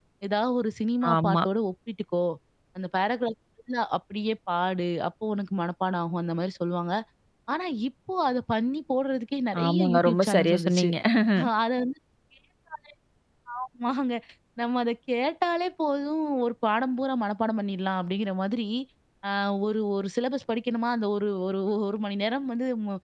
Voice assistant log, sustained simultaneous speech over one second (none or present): present